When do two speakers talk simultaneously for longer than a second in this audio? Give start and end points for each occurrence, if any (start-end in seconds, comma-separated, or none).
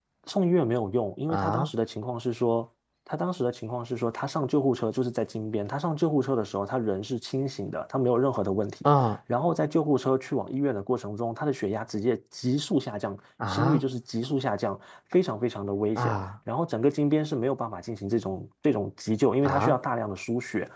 none